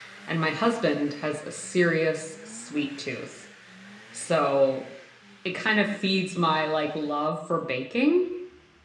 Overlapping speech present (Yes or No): No